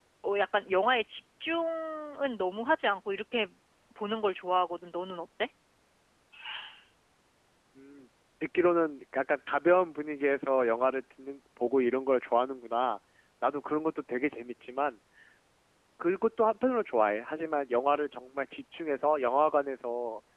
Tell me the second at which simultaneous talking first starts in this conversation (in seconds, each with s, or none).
none